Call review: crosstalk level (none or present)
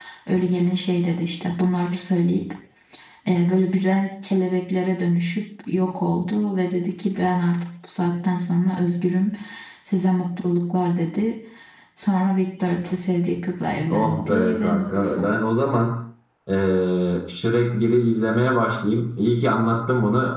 present